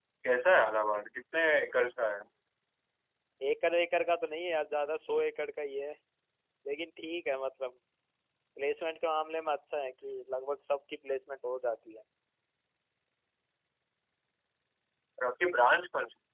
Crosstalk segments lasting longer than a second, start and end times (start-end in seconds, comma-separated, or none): none